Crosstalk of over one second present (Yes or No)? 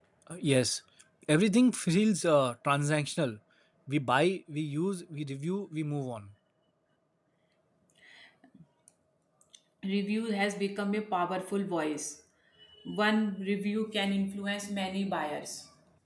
No